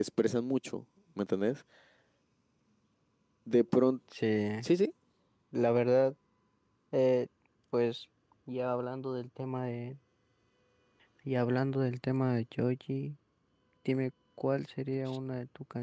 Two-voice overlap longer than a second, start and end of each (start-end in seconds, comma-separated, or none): none